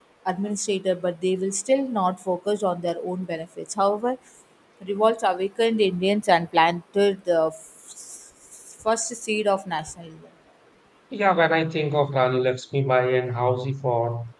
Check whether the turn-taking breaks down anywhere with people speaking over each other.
No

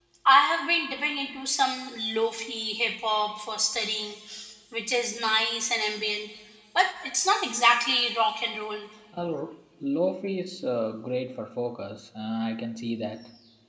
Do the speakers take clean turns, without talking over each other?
Yes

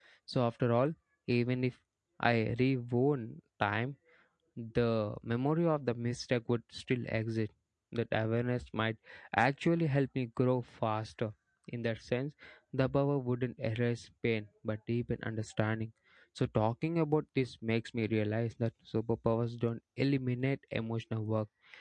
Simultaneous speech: No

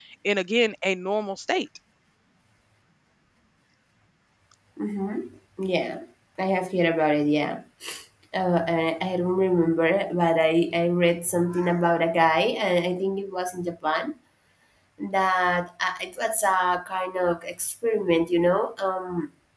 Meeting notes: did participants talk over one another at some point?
No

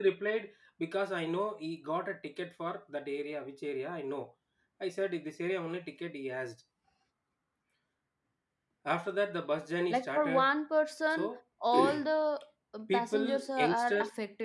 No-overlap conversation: No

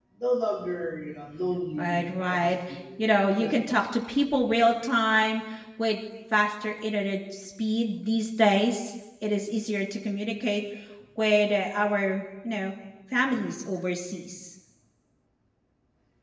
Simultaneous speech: Yes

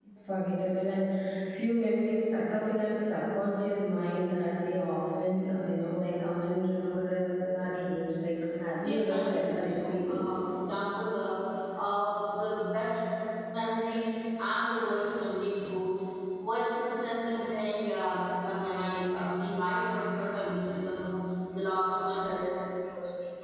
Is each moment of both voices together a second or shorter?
No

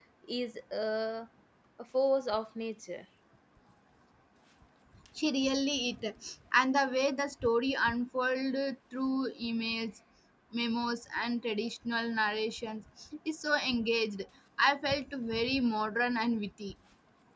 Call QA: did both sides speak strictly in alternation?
Yes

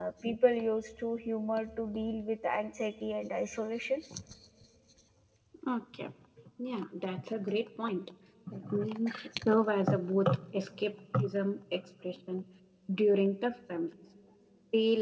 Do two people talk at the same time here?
No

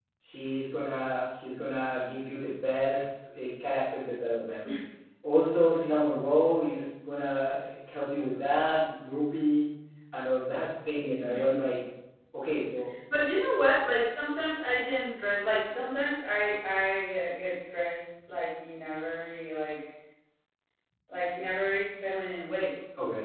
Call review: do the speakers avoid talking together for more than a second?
Yes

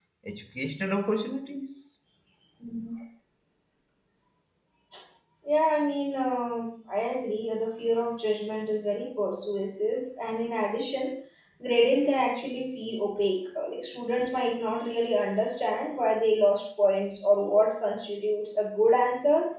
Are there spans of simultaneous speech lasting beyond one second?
No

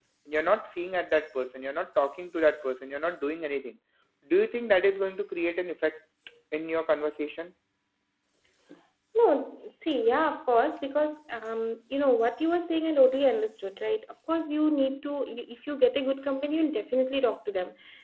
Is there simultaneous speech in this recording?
No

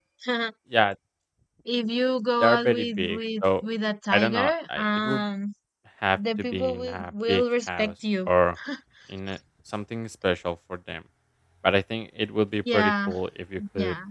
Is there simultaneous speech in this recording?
Yes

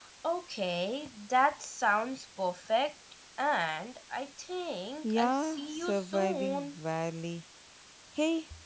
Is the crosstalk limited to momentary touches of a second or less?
No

